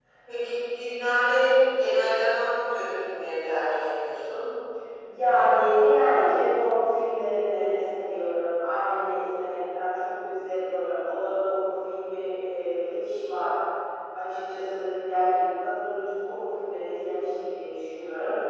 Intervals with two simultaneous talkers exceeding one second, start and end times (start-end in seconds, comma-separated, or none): none